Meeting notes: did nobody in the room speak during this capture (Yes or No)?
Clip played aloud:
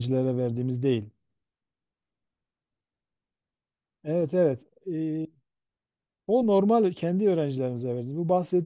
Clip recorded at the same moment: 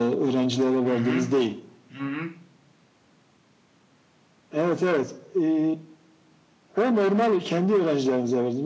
No